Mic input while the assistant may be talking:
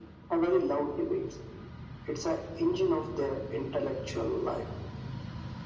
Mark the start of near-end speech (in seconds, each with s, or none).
none